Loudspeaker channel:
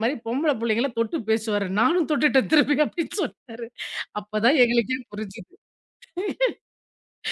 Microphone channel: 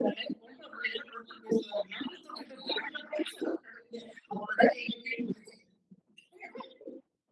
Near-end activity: none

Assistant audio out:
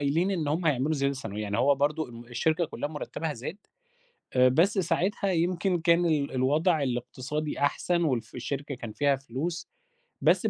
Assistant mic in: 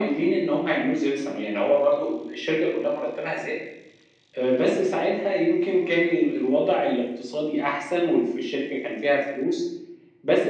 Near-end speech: none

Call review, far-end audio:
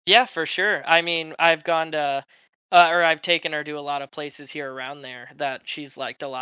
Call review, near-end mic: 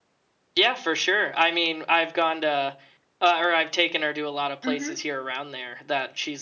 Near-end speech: present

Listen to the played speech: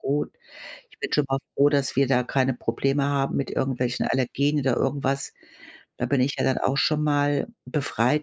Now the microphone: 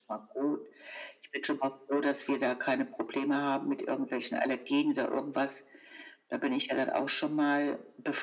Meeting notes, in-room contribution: none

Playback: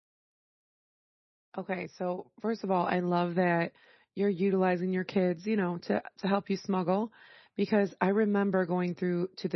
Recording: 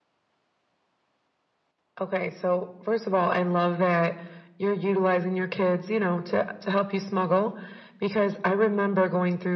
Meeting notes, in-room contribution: none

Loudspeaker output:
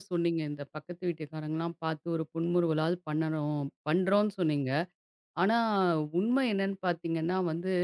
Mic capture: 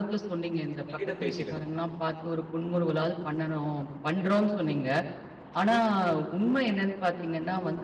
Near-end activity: present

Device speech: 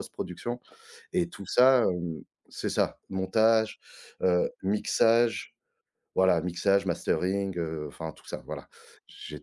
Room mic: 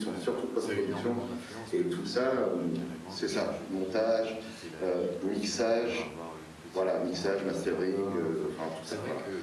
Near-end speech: present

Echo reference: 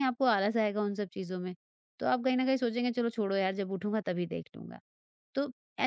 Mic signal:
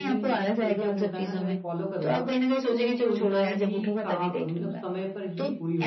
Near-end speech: present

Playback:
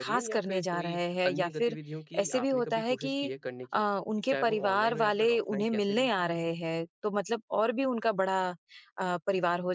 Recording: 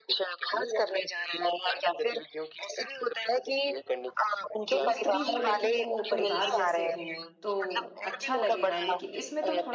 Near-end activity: present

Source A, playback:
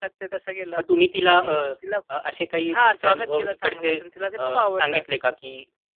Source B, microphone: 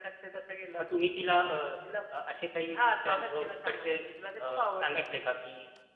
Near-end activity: none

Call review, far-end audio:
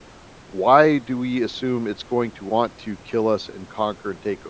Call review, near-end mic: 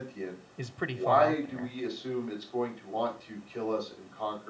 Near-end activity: present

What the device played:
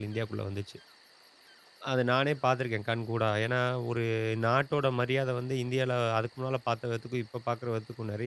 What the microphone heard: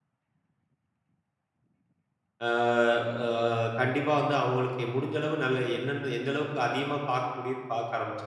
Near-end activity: present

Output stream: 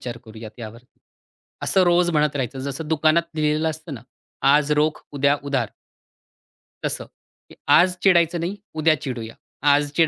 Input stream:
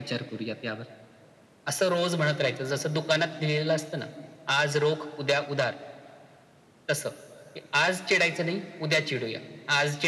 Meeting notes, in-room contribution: none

